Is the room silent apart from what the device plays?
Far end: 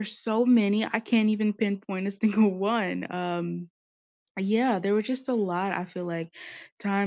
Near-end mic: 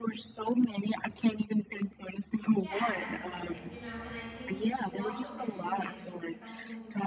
No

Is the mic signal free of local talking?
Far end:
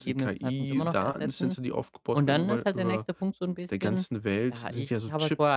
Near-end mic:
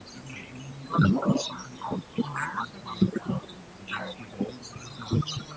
Yes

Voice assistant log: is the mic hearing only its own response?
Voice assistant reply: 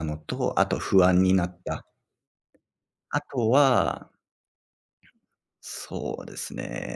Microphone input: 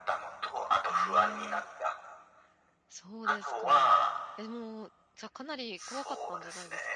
No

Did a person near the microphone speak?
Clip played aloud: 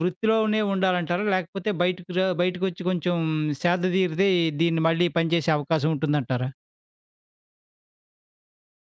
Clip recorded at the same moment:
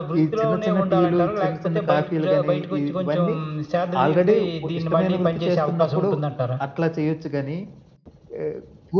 Yes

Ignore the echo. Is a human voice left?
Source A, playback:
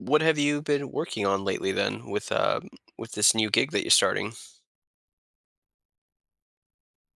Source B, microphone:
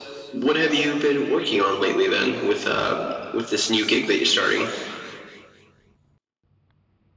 No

